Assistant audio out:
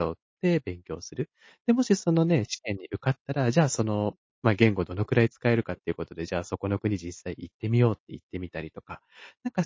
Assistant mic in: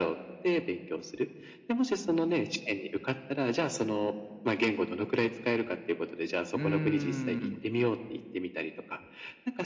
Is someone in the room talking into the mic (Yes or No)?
Yes